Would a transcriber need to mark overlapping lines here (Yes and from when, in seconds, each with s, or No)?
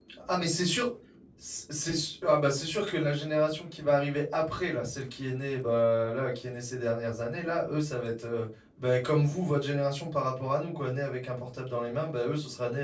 No